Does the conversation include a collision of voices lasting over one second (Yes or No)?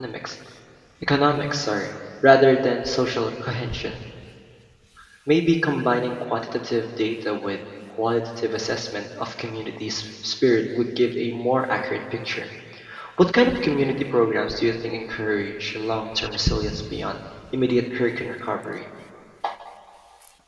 No